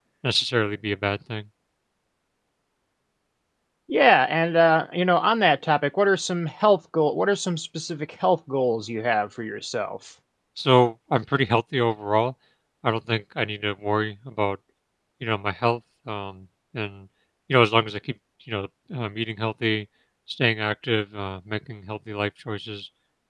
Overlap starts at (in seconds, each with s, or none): none